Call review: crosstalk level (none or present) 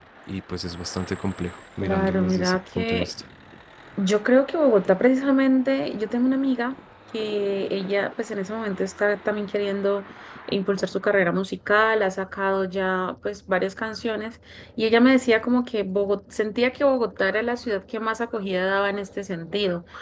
present